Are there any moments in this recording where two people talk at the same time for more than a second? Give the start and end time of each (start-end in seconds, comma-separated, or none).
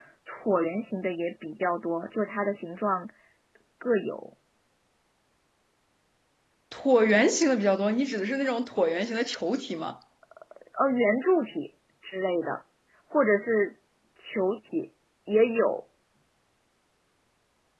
none